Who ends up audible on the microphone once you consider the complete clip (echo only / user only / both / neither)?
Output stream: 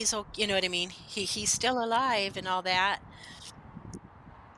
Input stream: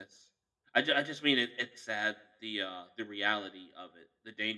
user only